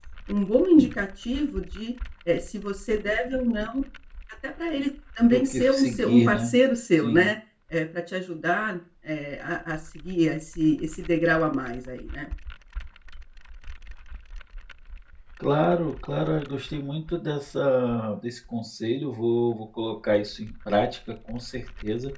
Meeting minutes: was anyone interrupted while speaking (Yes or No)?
Yes